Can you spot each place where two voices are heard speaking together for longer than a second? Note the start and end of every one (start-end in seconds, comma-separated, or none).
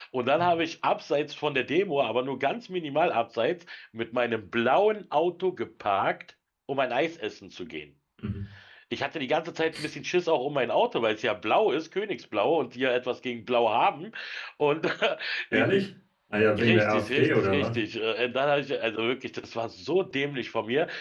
16.6-17.8